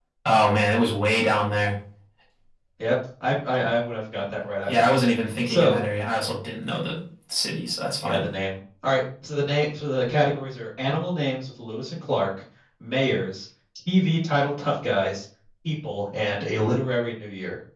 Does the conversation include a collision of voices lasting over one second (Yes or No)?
No